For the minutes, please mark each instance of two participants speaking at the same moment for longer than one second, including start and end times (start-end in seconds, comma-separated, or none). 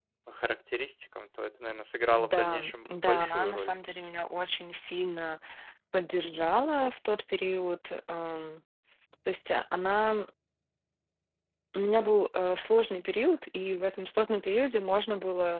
2.1-3.7